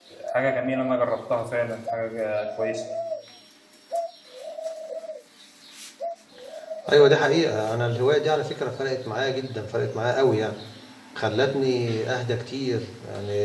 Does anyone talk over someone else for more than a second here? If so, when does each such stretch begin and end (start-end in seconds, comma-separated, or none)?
none